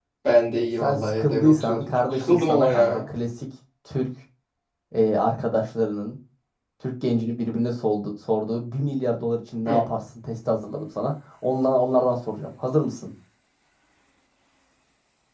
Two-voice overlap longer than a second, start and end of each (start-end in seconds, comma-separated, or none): 0.8-3.0